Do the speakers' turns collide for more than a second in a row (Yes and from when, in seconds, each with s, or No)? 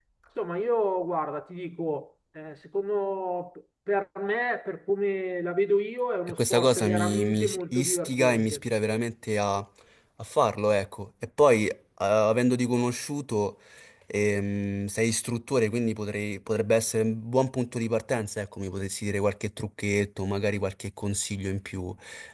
Yes, from 6.3 s